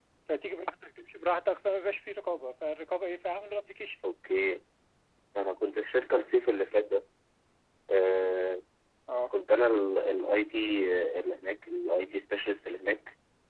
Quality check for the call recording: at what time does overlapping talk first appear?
none

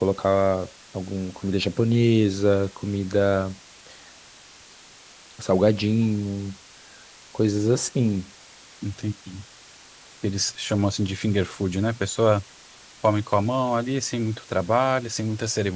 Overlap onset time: none

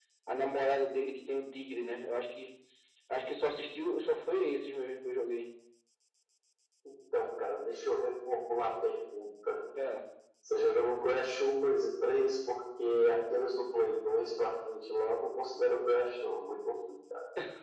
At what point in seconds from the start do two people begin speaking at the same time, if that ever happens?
none

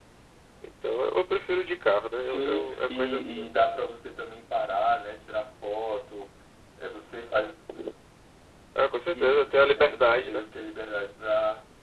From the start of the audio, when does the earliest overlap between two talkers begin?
2.2 s

